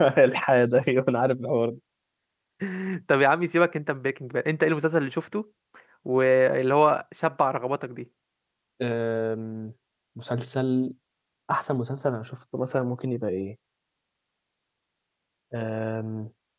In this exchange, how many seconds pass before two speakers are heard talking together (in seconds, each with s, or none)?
none